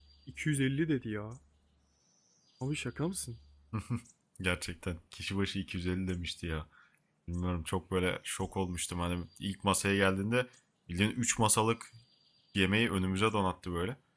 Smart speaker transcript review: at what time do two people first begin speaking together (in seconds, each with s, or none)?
none